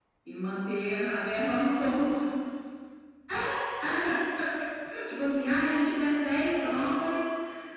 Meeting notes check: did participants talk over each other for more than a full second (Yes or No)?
No